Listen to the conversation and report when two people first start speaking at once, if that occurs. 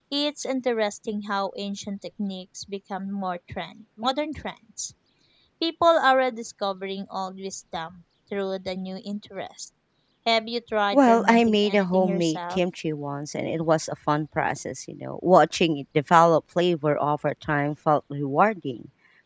11 s

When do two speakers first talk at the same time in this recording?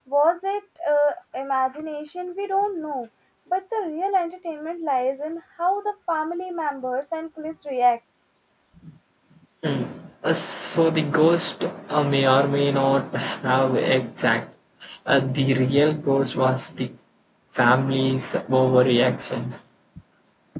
none

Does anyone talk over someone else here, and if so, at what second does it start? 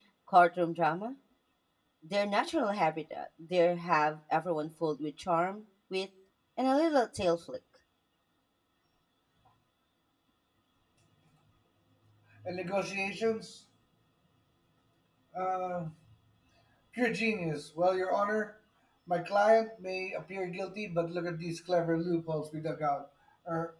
none

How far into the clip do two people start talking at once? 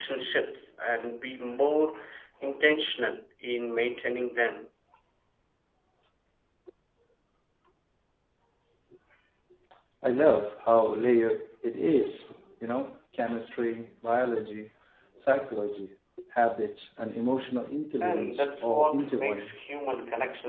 18 s

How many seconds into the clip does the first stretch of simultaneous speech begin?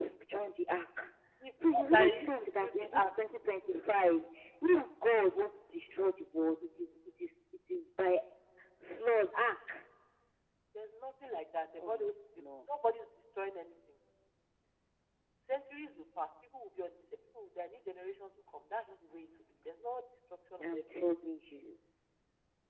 2 s

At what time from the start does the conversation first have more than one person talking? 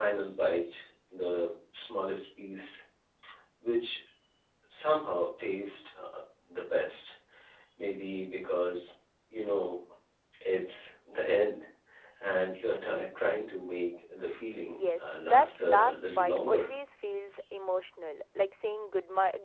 15 s

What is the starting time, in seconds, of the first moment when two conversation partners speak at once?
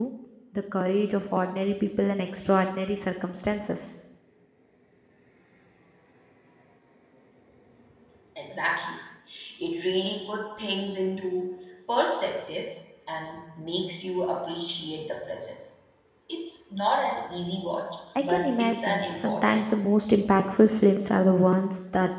18 s

